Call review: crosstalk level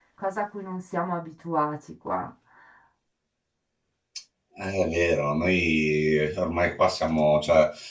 none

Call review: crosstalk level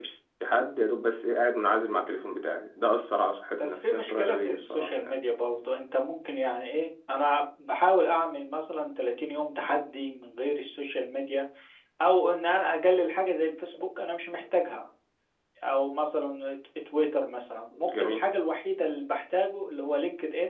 present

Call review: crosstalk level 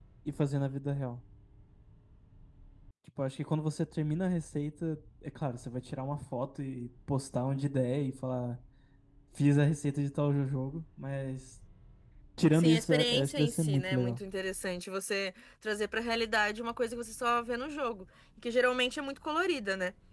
present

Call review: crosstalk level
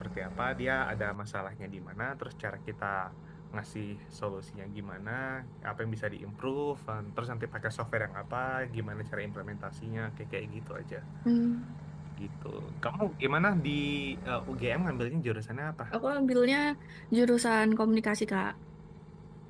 none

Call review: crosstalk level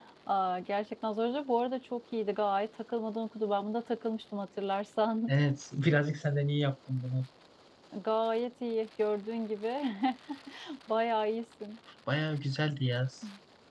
none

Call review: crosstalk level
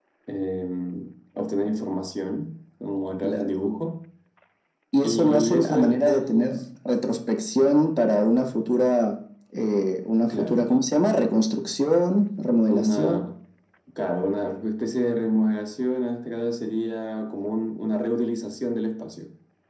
present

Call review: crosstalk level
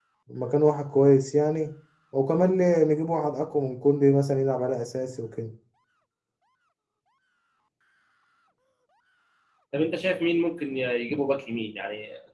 none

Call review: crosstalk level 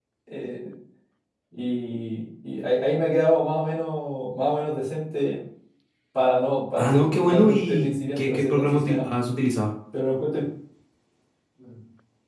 present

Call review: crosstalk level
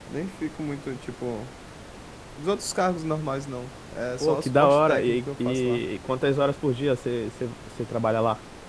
present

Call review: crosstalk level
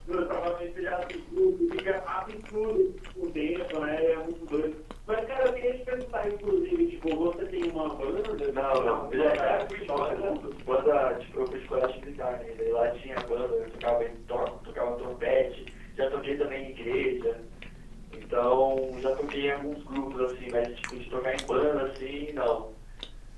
present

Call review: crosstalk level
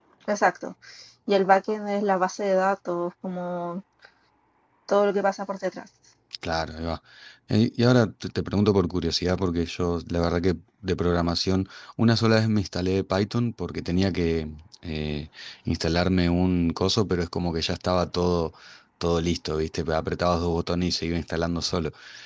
none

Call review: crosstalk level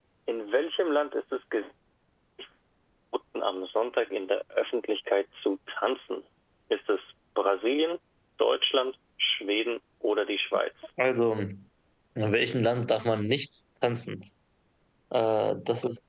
none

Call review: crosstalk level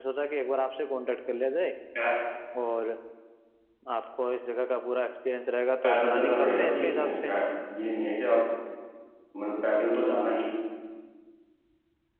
present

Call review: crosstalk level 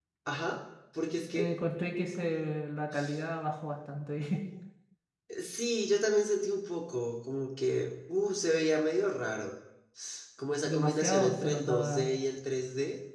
present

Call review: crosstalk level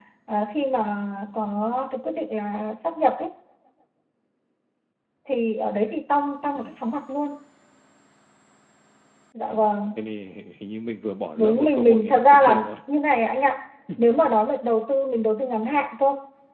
present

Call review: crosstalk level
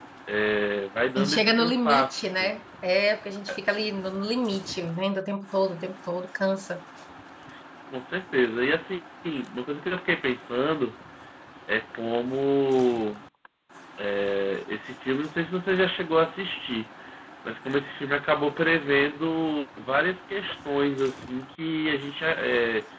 present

